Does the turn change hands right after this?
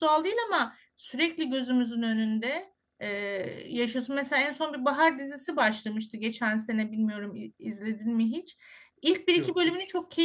No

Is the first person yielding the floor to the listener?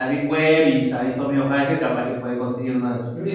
Yes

